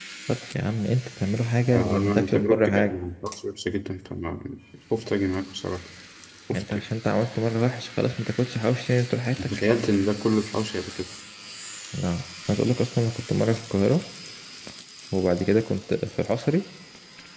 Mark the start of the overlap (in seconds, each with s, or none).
1.7 s